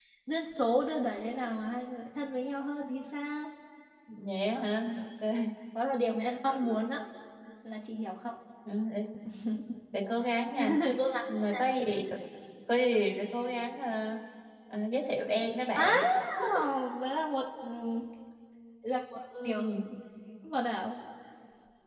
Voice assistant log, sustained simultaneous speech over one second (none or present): none